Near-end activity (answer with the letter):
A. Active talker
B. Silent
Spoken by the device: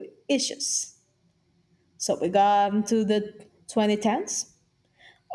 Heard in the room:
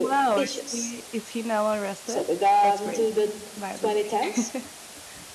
A